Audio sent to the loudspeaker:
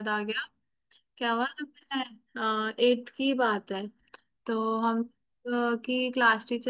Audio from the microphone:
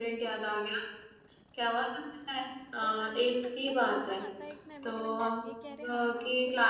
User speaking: Yes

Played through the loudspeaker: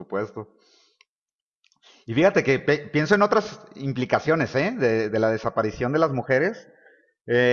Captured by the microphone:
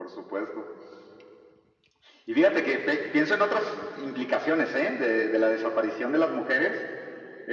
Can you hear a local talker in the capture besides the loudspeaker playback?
No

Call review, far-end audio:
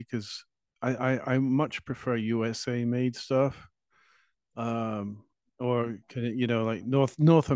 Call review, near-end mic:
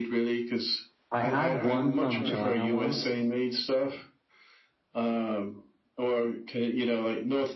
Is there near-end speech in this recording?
Yes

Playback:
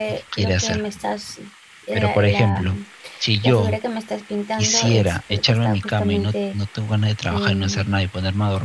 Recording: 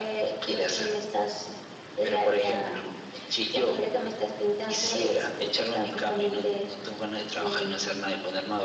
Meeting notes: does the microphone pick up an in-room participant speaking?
No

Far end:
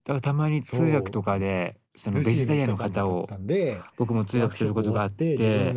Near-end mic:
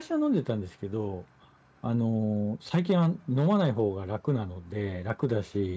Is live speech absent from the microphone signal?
No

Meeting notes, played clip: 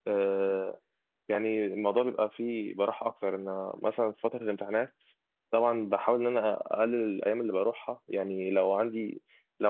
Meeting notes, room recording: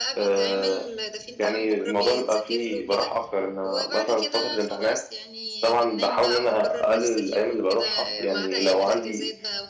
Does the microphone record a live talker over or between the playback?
Yes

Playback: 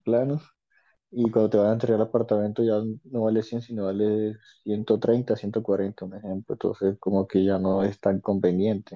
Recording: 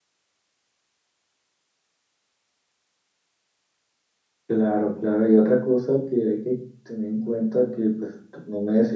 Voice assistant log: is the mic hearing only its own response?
No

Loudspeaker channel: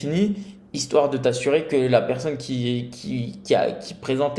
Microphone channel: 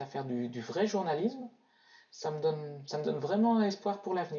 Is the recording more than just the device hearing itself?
Yes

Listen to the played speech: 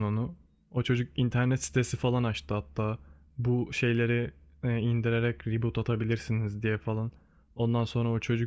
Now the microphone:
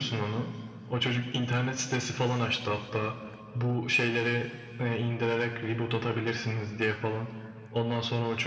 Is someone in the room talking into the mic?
No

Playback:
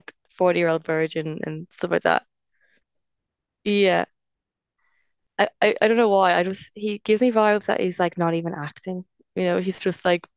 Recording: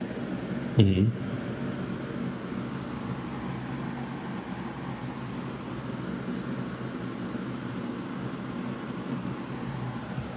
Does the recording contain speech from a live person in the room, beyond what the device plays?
Yes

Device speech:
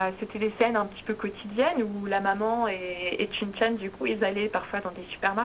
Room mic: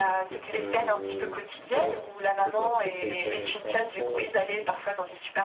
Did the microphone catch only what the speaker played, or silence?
No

